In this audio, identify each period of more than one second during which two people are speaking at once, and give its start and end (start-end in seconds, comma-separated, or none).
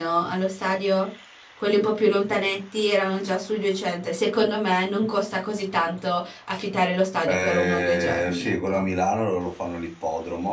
7.3-8.8